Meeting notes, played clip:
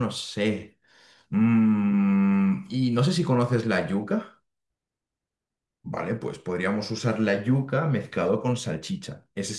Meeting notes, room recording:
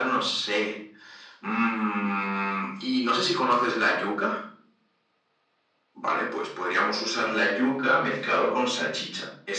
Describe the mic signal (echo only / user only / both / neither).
echo only